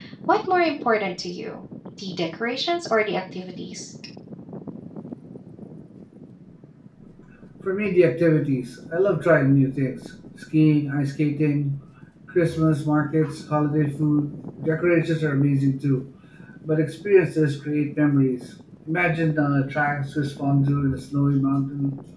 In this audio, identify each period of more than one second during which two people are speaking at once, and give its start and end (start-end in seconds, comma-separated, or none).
none